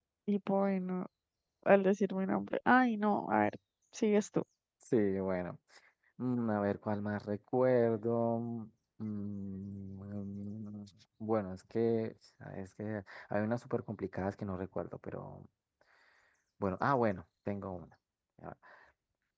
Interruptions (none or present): none